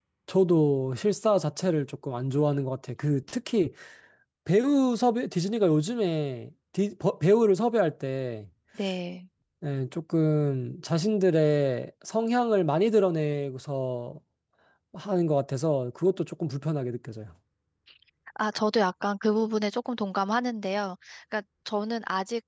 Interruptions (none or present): none